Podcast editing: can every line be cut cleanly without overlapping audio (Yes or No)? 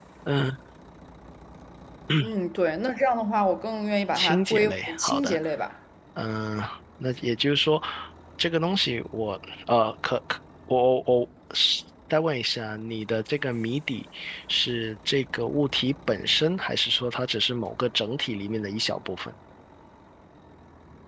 No